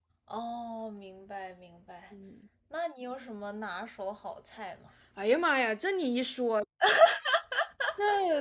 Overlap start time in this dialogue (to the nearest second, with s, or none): none